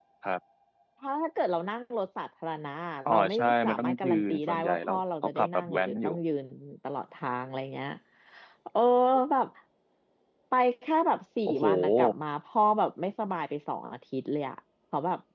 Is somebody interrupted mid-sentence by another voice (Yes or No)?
Yes